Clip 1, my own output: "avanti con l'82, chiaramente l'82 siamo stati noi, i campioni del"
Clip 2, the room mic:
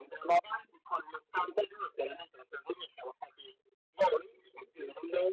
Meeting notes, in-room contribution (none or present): none